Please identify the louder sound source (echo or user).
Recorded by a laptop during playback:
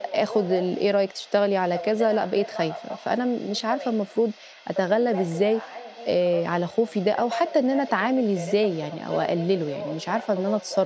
user